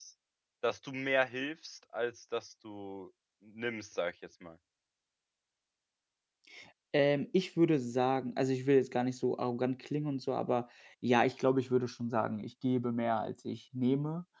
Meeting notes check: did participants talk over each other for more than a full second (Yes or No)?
No